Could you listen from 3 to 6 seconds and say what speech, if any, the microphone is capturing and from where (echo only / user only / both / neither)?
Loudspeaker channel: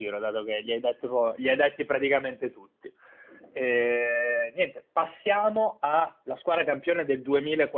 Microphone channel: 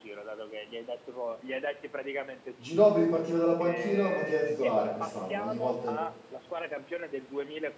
both